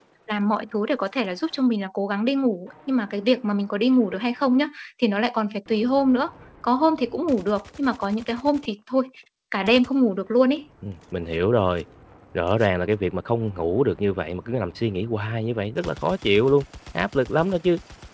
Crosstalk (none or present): none